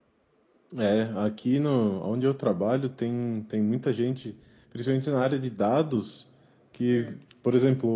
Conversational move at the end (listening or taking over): listening